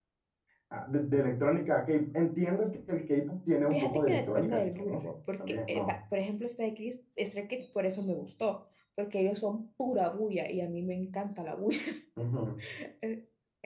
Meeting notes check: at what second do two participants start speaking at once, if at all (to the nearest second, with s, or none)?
4 s